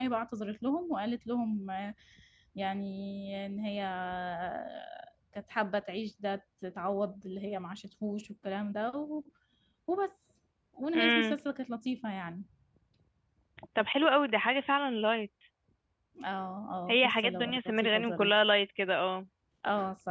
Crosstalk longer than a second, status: present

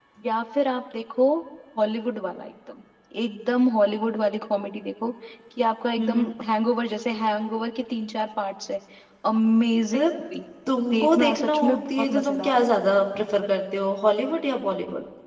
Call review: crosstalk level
present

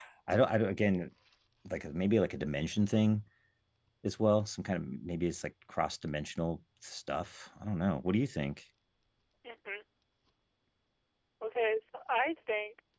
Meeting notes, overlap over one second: none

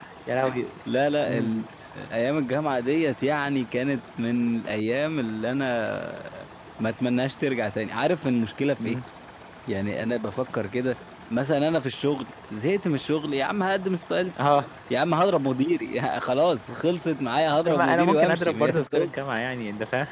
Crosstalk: present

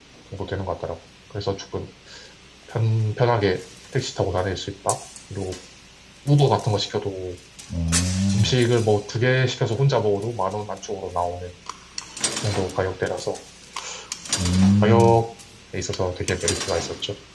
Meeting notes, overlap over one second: none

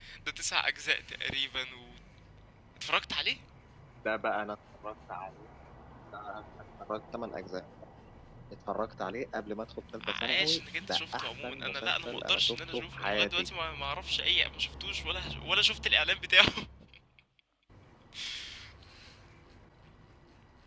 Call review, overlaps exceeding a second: present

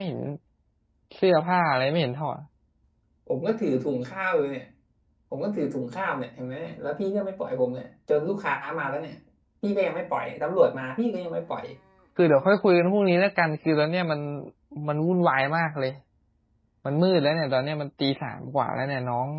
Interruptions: none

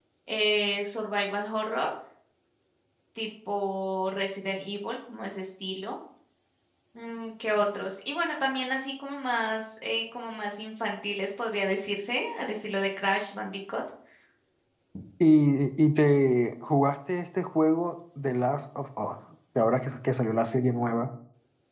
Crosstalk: none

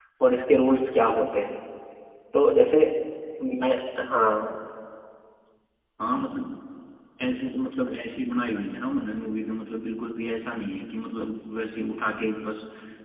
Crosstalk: none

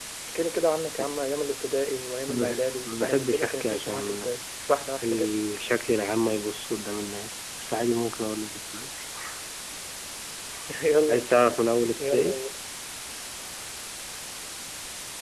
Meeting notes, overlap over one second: present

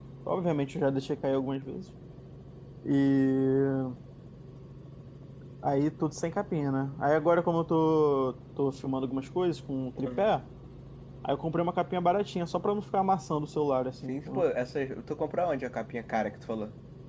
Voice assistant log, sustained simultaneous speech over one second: none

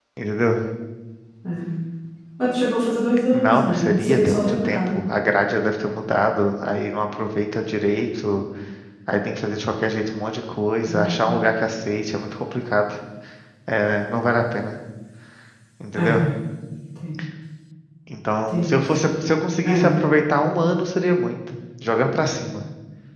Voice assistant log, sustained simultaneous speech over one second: present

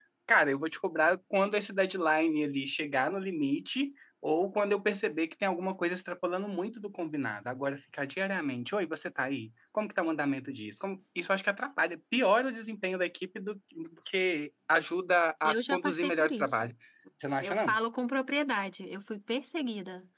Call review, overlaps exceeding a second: present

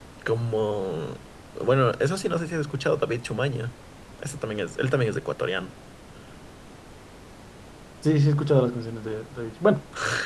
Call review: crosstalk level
none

